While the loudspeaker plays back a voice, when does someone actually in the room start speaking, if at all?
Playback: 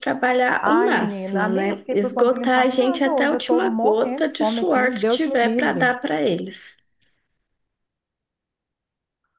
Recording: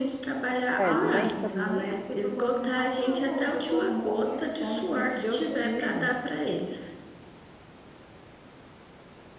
0.8 s

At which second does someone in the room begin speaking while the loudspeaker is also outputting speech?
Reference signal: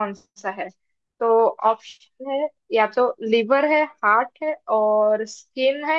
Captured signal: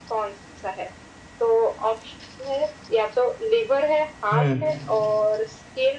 4.3 s

